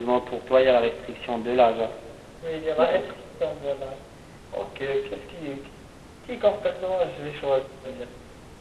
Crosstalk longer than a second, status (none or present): none